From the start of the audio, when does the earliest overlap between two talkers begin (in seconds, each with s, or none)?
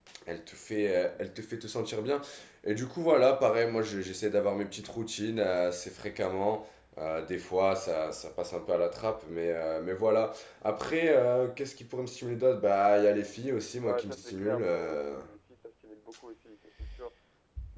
13.8 s